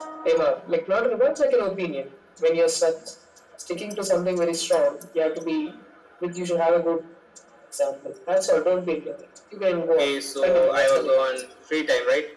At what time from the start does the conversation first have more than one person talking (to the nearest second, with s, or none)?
10 s